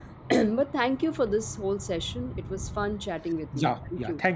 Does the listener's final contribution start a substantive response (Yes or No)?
Yes